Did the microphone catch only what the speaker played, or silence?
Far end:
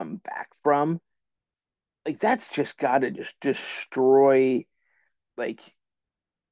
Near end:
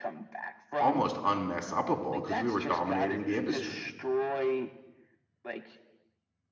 No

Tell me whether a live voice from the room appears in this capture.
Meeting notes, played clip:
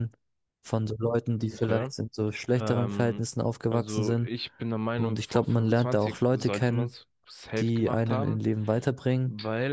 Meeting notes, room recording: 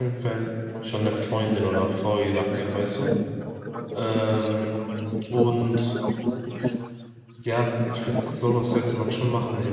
Yes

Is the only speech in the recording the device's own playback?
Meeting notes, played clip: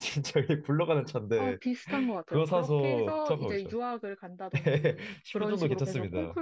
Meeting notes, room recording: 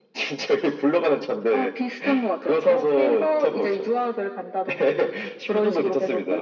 Yes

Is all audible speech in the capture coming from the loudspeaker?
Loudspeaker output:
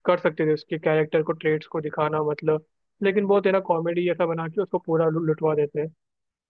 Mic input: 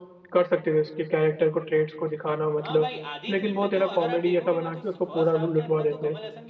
No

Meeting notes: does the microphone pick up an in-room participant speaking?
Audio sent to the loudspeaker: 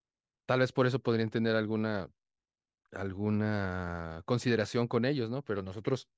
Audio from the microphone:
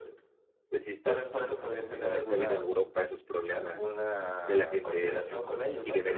Yes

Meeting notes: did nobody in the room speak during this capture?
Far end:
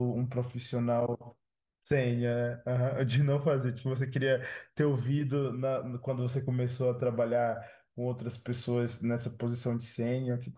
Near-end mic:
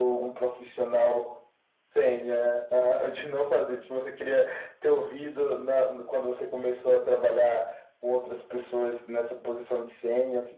Yes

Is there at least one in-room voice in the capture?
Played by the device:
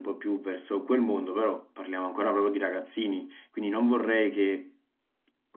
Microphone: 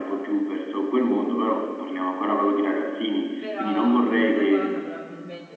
Yes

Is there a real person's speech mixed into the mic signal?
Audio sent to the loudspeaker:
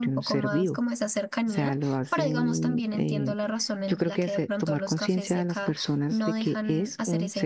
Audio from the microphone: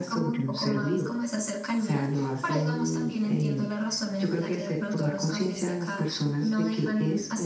No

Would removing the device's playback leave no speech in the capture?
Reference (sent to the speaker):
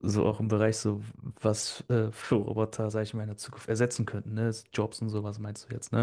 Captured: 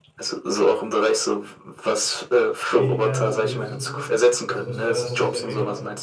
No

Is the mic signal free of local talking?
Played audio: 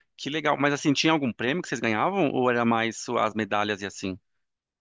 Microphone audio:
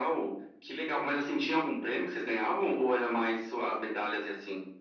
Yes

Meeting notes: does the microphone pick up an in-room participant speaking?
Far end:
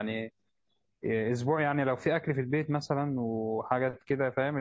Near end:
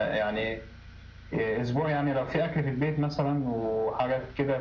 No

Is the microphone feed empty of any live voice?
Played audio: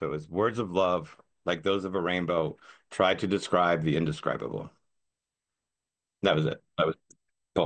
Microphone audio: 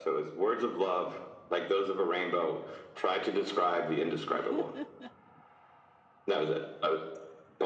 No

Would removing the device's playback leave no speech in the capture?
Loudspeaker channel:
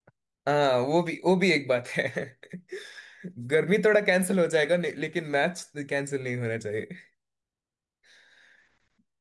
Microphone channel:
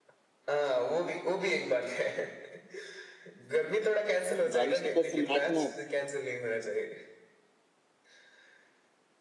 No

